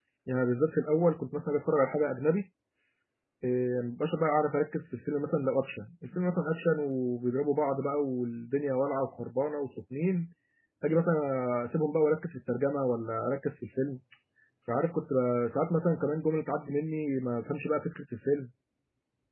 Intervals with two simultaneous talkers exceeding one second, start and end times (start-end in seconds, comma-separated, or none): none